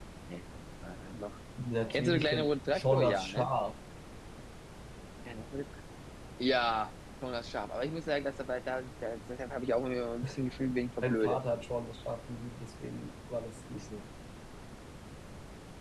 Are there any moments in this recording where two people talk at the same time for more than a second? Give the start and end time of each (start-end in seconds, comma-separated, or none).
1.9-3.5